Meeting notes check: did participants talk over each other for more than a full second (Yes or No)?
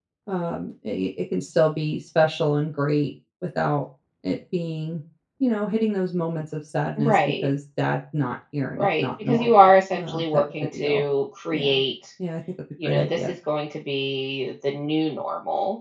Yes